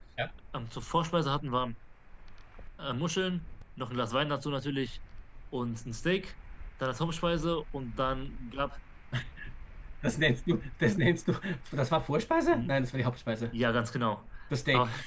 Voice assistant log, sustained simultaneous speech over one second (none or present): none